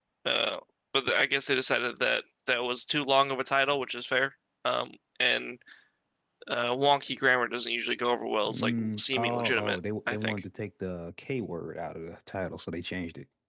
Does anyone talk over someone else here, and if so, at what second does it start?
8.4 s

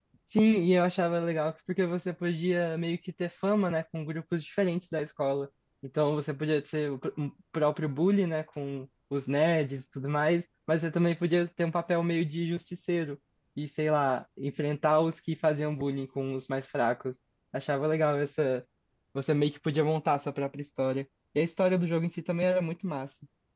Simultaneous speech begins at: none

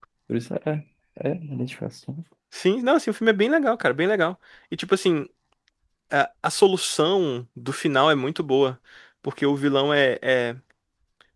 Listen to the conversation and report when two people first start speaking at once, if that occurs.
none

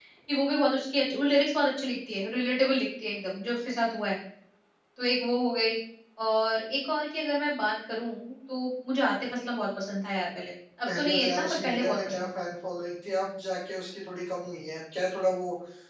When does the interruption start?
10.8 s

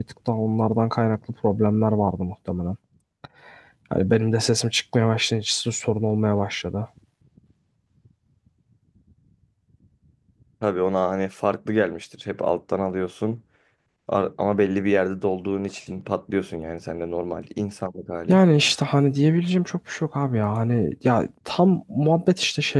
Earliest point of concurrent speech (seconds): none

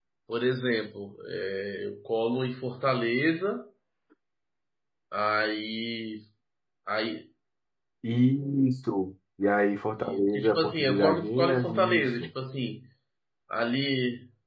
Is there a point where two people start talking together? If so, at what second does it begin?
10.0 s

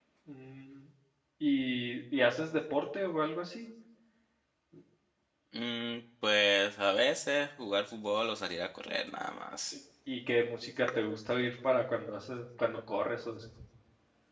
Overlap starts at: none

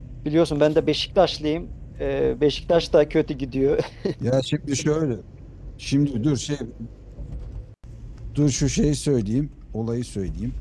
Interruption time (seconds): none

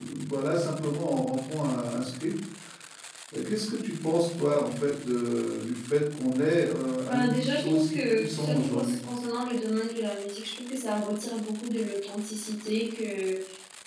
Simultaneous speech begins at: 7.0 s

